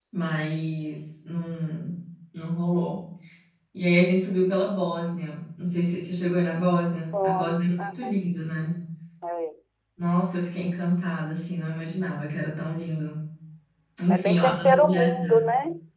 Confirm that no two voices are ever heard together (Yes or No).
No